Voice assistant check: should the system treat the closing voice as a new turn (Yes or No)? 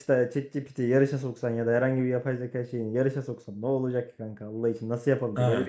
Yes